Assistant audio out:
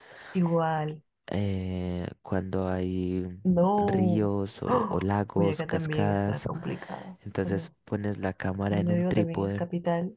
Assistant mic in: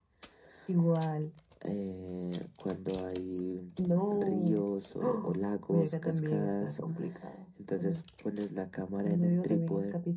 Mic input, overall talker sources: echo only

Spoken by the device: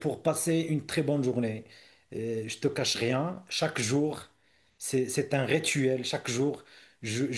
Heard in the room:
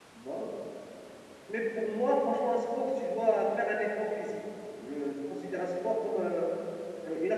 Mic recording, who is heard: user only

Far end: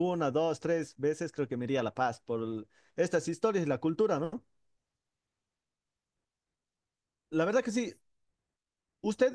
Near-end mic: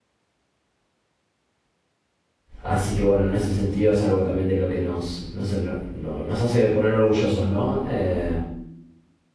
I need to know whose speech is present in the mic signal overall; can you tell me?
user only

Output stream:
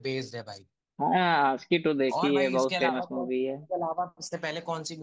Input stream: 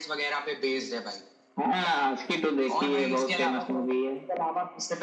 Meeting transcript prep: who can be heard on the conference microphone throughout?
echo only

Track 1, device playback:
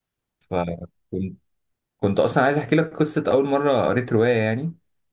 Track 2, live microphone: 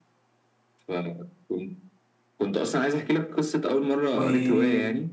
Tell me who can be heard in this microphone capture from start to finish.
both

